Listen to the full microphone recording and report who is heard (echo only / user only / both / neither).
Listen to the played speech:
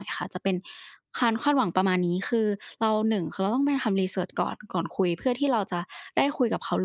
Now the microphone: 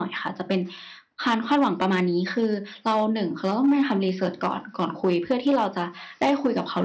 echo only